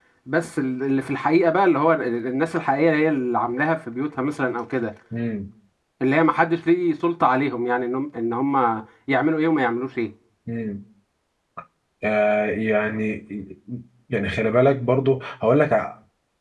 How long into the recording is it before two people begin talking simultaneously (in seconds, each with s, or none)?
none